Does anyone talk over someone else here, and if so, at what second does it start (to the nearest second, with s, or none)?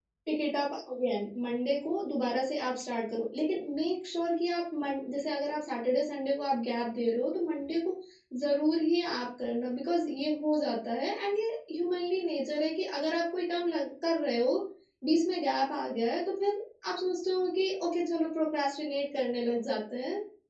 none